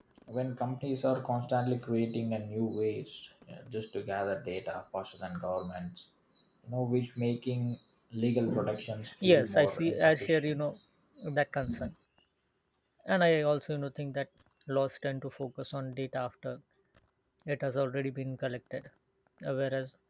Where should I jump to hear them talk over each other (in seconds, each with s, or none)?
9.0 s